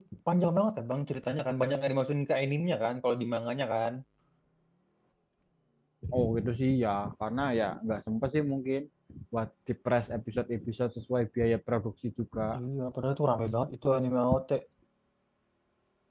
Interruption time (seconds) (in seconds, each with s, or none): none